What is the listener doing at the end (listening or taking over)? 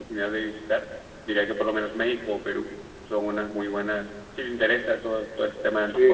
listening